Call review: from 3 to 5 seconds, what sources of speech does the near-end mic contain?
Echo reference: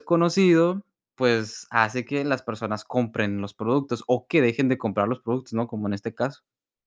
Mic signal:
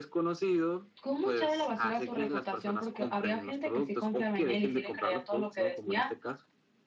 both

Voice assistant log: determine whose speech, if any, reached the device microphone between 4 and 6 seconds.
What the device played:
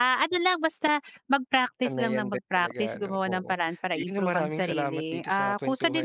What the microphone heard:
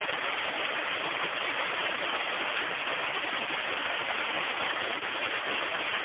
neither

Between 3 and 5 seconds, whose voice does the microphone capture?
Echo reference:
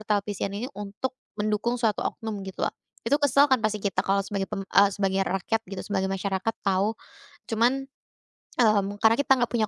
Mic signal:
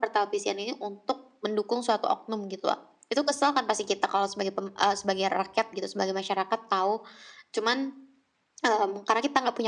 echo only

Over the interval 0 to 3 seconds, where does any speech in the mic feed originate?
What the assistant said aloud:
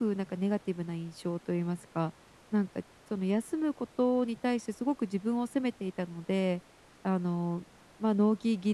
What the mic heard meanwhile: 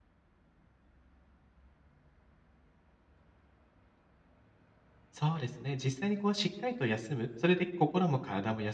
neither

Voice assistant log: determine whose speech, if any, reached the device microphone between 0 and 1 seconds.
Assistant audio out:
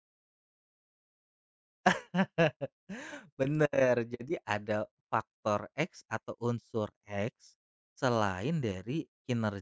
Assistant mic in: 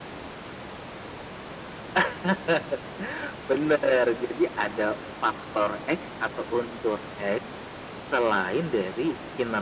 neither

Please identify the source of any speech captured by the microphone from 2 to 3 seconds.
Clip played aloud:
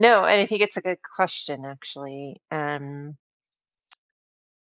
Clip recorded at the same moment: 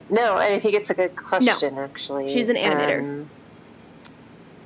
both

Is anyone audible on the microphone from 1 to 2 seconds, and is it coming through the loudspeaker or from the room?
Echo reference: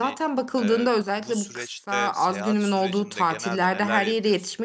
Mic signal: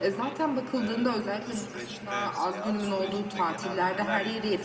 echo only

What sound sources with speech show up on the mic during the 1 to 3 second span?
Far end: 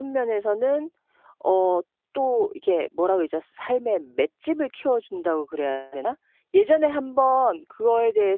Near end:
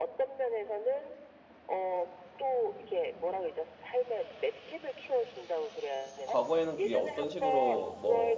echo only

